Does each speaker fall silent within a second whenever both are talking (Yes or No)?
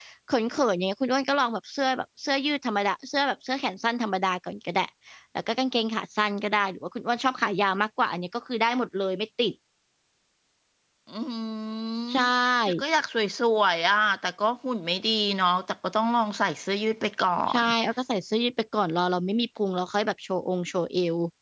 Yes